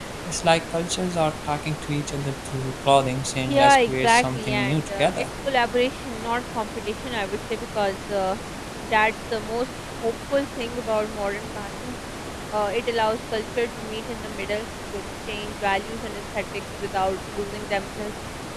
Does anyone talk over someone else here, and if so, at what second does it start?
3.5 s

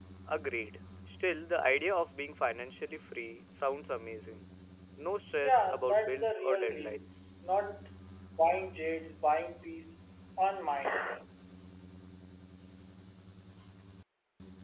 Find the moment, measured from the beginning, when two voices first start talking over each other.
5.4 s

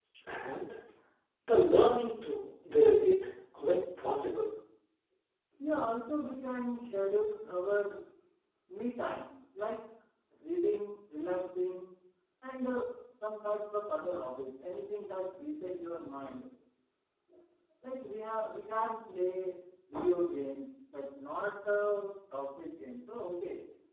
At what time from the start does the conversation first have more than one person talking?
none

